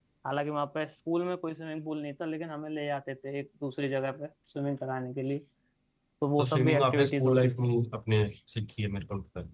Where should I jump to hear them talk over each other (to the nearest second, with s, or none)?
6 s